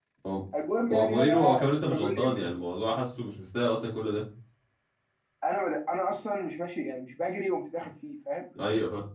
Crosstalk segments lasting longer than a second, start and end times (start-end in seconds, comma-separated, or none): 0.9-2.4